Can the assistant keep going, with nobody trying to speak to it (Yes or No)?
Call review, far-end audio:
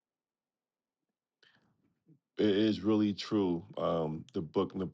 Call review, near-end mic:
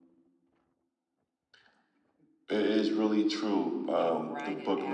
No